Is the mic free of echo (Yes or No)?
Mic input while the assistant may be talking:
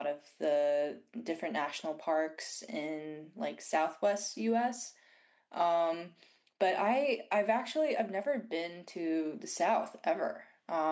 Yes